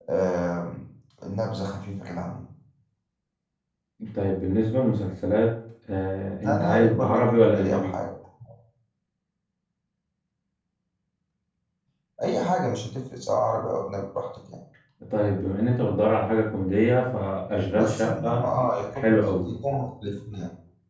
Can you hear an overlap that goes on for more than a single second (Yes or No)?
Yes